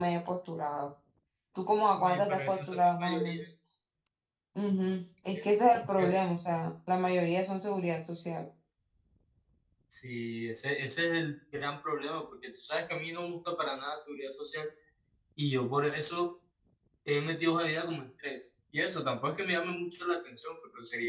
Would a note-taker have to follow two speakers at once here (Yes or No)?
Yes